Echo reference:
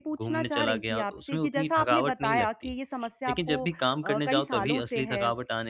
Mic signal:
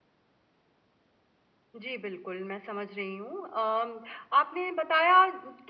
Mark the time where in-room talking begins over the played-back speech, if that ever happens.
1.8 s

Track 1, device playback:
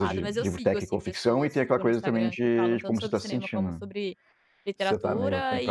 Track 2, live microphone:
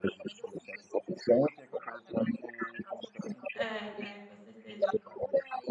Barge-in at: 3.5 s

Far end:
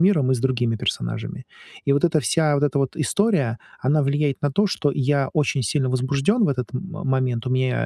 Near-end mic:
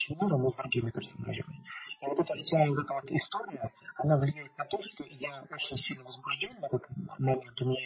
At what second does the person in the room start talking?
none

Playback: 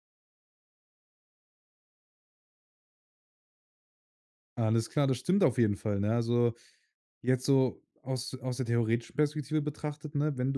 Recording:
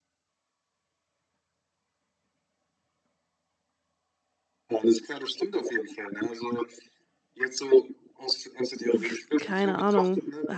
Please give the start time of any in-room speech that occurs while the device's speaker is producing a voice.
8.9 s

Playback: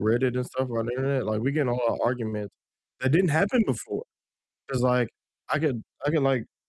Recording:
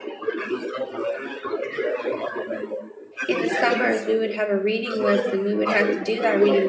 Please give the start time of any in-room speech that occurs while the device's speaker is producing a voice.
3.3 s

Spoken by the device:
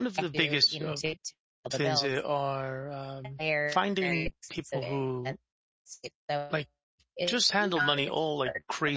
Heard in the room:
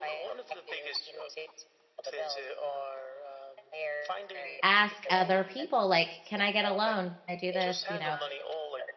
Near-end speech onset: 4.6 s

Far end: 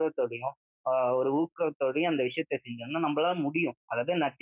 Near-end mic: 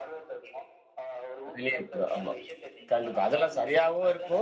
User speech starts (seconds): 1.5 s

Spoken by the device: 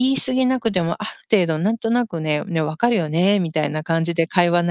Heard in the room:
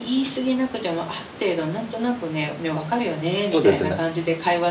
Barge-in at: 3.5 s

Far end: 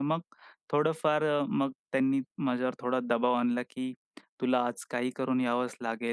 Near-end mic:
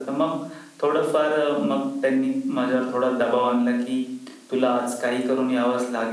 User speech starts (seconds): none

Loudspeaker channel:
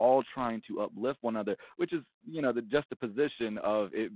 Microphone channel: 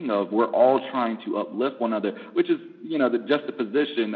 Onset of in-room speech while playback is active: none

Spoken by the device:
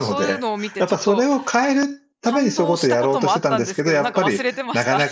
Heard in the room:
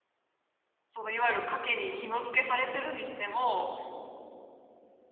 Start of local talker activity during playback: 0.9 s

